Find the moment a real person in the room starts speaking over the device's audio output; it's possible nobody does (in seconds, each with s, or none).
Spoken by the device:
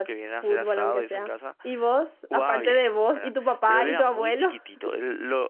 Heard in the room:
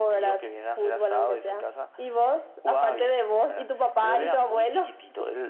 none